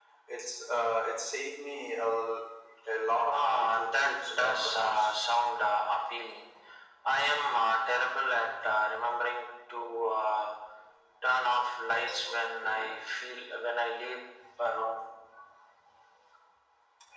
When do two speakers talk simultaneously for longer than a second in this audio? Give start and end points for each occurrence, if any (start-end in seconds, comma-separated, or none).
3.3-5.2